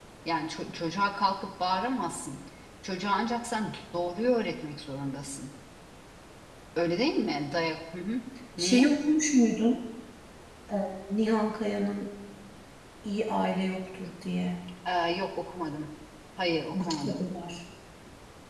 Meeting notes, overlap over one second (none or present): none